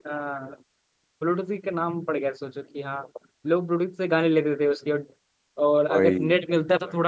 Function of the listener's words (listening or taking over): listening